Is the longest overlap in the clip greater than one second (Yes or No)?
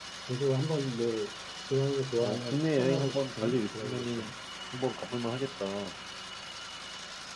Yes